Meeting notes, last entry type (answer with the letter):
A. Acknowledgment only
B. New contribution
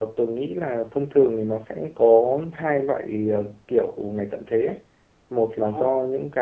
A